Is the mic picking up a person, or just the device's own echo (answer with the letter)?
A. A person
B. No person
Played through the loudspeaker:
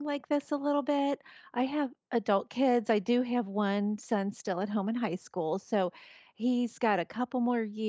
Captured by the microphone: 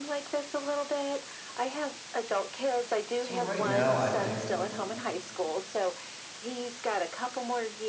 A